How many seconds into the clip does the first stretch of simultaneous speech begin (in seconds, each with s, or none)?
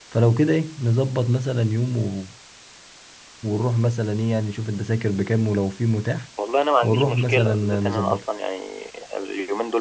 6.8 s